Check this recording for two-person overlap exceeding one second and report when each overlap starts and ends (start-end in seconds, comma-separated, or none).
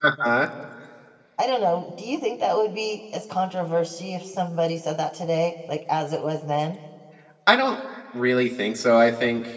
none